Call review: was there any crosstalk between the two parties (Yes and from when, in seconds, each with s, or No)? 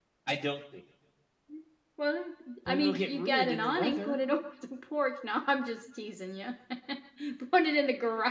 Yes, from 2.7 s